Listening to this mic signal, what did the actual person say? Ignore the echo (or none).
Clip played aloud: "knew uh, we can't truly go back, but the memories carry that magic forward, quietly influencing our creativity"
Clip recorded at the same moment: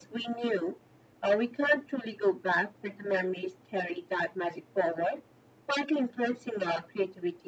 none